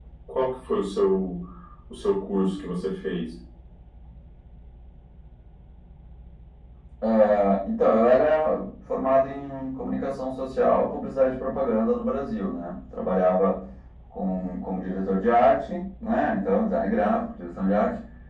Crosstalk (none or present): none